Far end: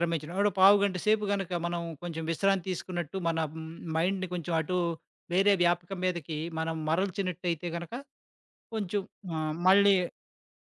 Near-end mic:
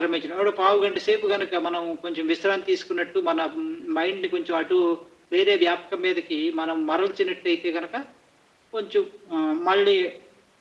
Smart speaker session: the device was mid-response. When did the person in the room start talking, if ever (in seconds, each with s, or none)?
none